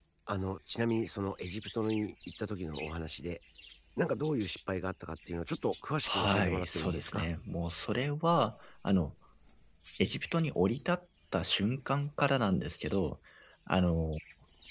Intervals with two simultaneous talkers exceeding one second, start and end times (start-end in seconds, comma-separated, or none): 6.0-7.3